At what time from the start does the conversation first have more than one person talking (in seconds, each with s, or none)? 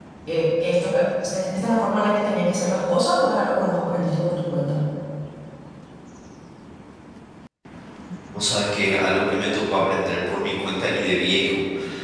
none